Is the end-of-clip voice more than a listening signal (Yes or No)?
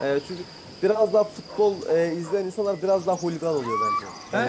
Yes